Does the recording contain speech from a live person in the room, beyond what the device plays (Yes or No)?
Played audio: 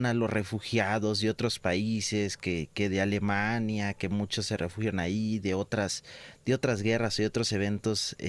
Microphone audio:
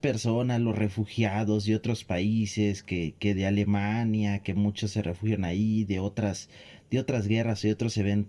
No